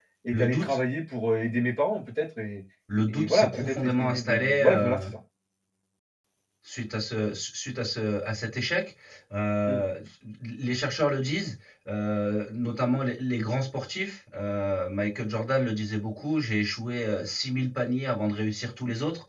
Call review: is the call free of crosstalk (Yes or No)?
No